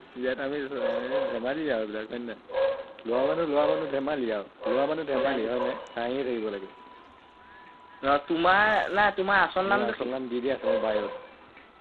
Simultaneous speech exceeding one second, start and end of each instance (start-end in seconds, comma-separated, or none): none